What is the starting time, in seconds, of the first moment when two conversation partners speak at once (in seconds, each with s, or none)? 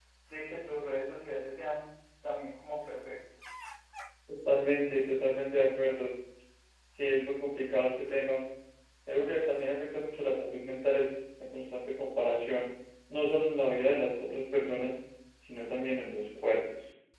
none